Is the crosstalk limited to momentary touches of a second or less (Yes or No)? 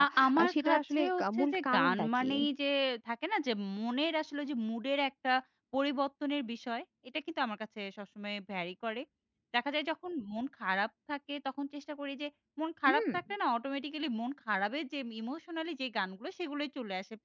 No